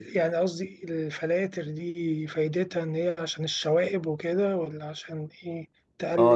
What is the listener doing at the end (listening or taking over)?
taking over